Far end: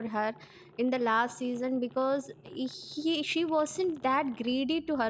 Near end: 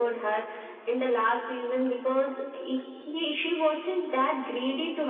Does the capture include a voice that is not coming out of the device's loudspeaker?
No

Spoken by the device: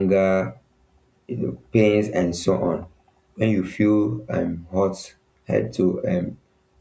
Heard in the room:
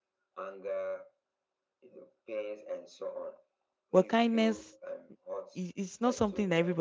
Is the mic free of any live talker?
No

